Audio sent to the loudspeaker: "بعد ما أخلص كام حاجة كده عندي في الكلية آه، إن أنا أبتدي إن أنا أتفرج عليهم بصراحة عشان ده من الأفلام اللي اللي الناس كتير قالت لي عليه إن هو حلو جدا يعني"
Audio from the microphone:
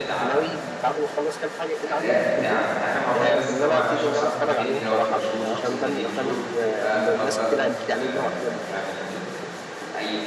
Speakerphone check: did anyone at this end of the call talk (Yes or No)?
Yes